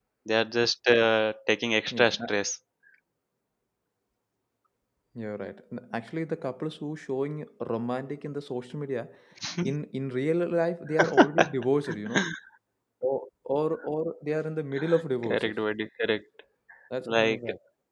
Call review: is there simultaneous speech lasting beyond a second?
No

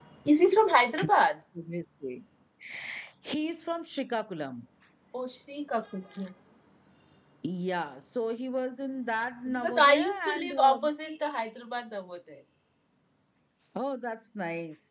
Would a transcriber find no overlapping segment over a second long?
No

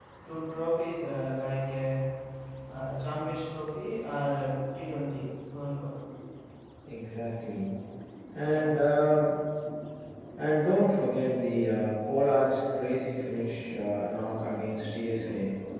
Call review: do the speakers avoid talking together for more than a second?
Yes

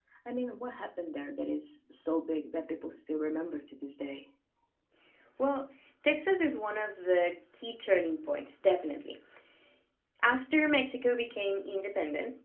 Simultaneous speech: No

